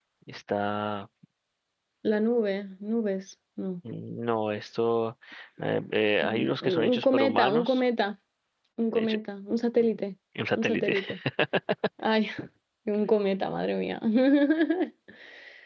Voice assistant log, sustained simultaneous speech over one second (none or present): present